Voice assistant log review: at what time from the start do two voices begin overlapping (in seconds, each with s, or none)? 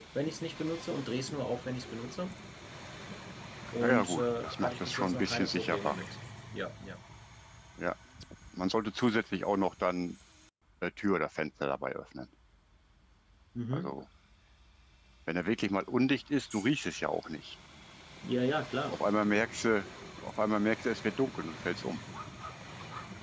3.8 s